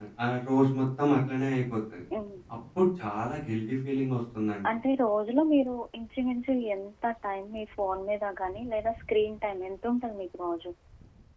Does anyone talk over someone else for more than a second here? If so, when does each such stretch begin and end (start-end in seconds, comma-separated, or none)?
none